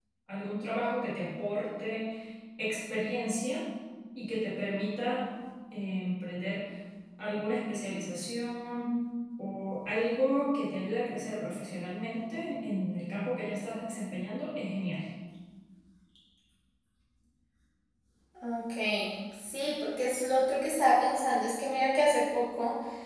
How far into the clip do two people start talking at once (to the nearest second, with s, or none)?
none